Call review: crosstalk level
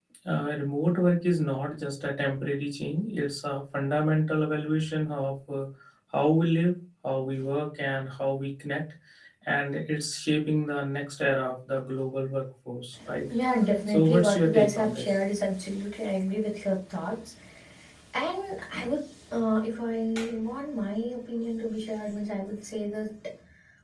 present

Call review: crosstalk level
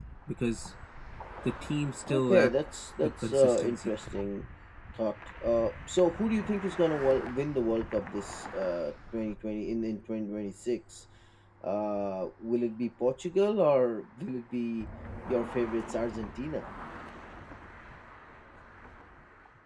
present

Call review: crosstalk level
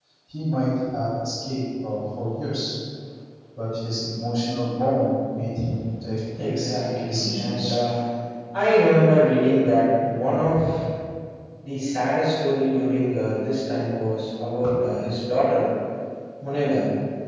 present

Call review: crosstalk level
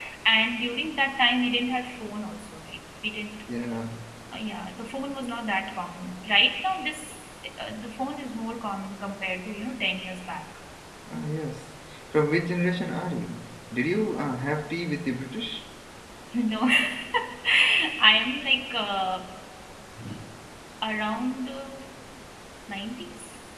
none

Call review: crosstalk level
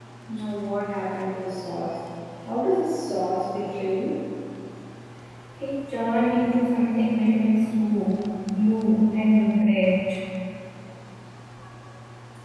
none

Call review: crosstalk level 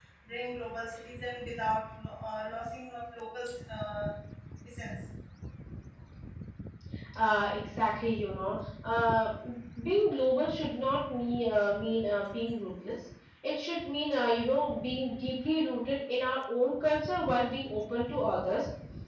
none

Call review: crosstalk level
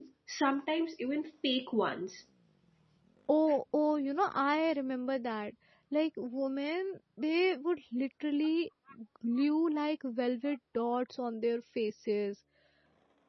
none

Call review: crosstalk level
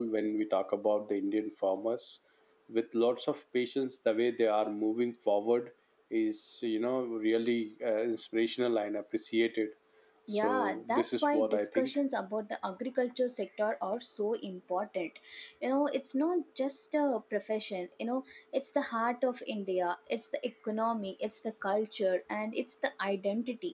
present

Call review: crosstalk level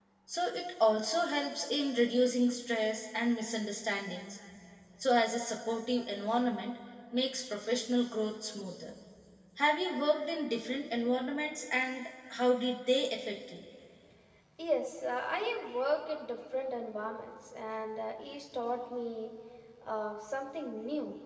none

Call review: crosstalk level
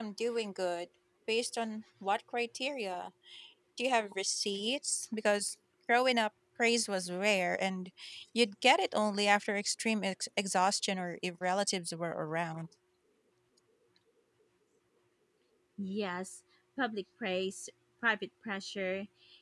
none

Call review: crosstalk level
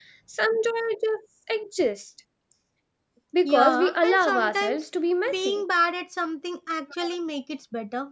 present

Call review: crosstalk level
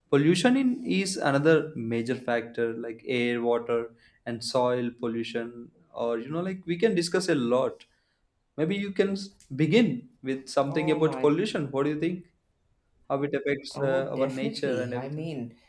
present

